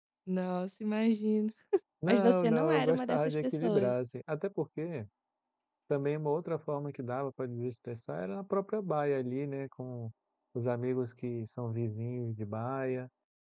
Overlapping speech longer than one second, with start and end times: 2.0-3.9

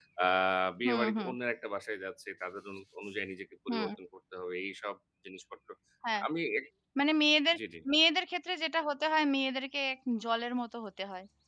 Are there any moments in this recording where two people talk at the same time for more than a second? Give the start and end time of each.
none

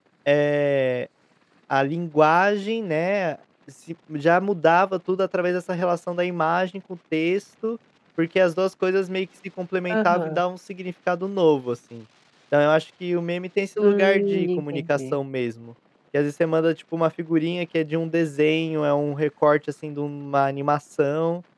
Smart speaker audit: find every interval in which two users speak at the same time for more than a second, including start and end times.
13.8-15.2

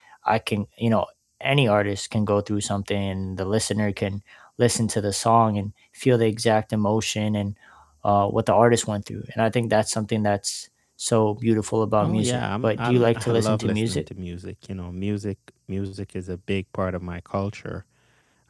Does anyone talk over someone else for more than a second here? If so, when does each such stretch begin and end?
12.0-14.1

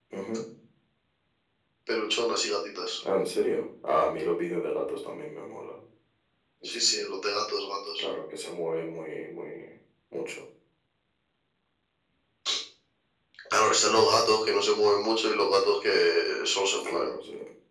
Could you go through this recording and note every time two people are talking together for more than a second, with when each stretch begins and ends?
none

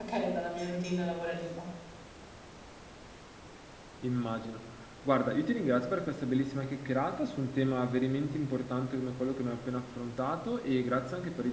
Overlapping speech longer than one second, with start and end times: none

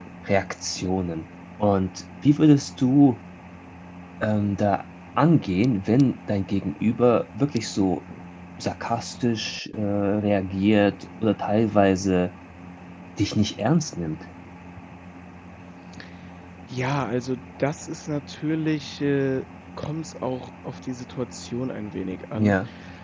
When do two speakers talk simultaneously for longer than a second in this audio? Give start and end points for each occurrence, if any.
none

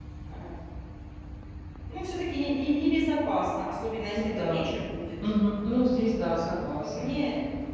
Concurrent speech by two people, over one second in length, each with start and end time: none

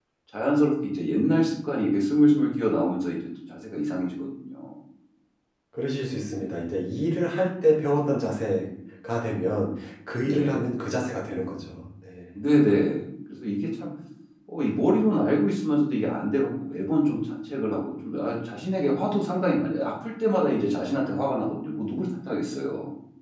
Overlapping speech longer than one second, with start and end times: none

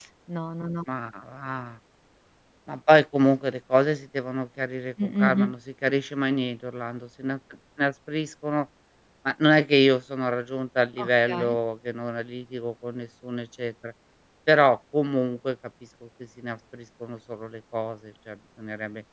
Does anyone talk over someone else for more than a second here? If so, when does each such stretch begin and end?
none

